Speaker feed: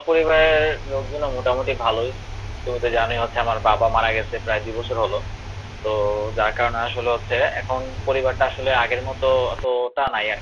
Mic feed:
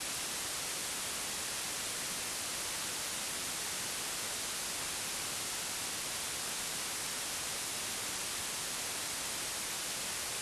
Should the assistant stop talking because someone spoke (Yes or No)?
No